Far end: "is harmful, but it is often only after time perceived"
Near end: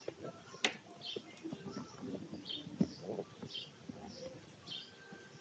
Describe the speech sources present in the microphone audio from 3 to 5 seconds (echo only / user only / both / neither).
neither